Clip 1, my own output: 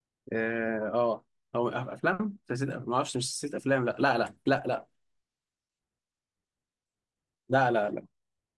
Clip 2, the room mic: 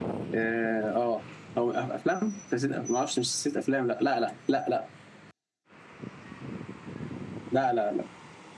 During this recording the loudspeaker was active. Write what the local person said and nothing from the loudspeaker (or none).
none